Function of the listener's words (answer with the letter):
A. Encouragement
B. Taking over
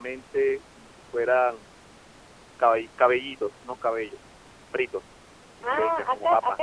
B